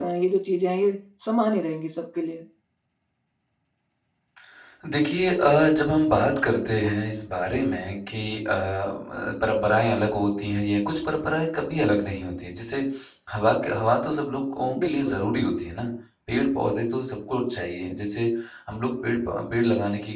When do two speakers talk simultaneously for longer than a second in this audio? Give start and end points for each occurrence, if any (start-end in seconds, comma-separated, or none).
none